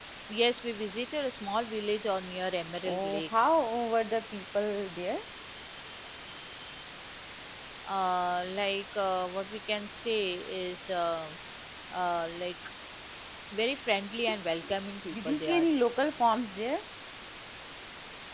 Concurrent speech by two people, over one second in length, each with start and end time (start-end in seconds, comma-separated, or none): none